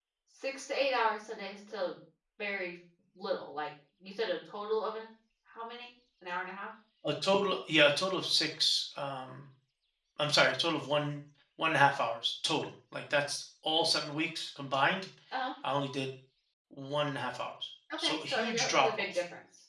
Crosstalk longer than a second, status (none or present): present